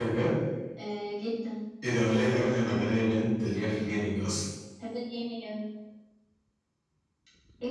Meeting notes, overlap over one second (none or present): none